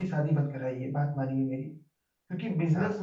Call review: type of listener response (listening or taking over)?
listening